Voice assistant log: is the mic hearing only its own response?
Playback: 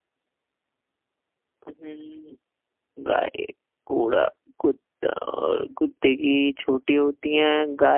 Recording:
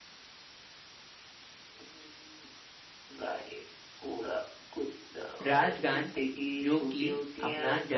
No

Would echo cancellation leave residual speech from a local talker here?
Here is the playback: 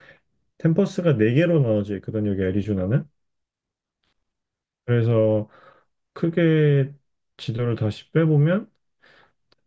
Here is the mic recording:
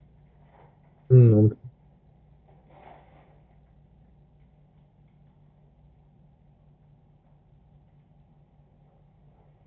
Yes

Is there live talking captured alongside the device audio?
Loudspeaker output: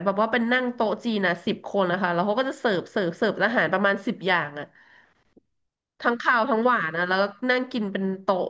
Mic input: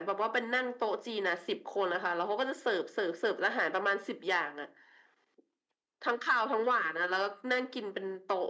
No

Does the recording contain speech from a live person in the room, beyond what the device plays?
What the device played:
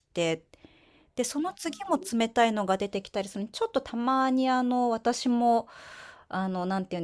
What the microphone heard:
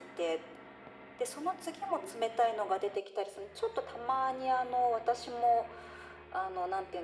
No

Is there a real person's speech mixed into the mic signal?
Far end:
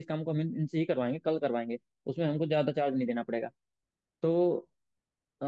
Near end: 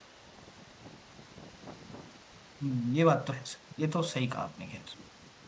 Yes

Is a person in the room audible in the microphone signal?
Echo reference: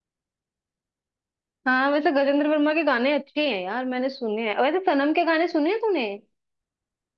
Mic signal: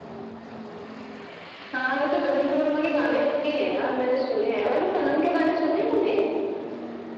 No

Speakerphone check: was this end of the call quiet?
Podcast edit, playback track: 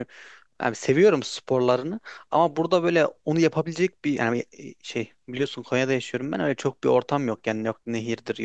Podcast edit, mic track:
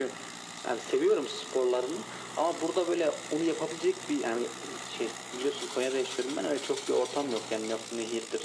Yes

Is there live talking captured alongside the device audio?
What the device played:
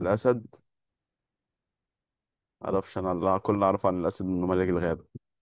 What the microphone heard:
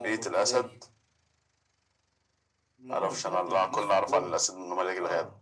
Yes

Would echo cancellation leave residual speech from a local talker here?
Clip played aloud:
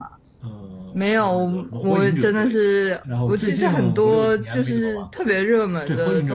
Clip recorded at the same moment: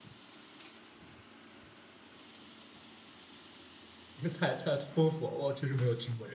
Yes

